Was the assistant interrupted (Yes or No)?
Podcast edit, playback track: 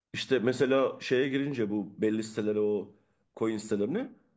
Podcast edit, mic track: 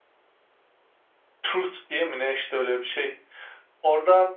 Yes